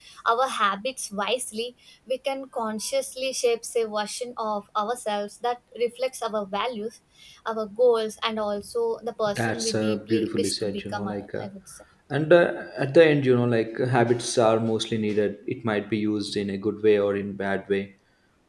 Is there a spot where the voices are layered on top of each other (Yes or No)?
Yes